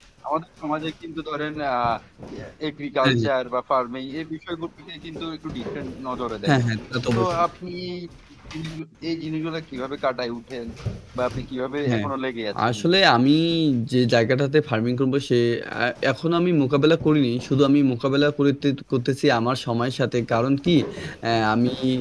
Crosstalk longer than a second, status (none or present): none